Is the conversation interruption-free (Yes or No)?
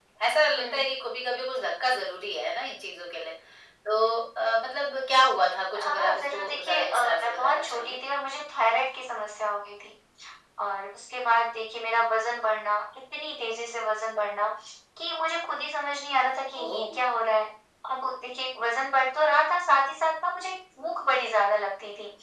No